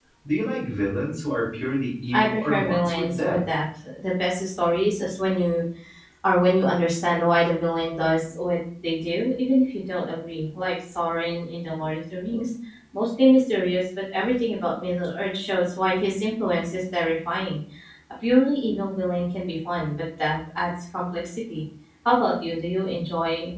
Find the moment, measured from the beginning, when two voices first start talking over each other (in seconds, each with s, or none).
2.1 s